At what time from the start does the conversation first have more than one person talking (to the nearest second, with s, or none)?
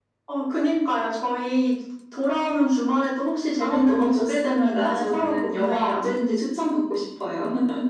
4 s